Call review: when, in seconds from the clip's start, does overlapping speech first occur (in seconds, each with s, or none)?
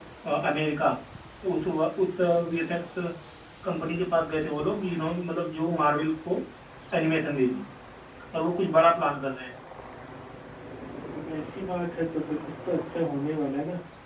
none